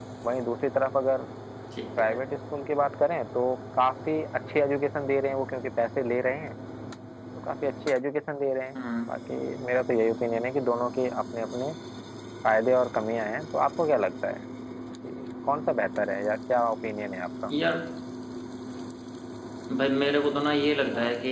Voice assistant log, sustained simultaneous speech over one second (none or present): none